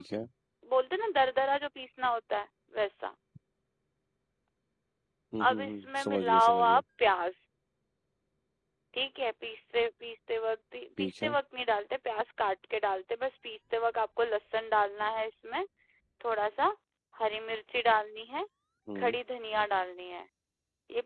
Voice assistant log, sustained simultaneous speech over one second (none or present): present